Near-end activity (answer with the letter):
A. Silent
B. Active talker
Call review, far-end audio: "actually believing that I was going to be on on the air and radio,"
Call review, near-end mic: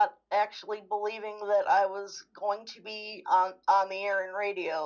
A